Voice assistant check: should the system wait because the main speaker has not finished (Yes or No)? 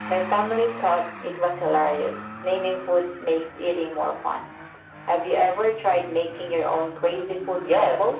No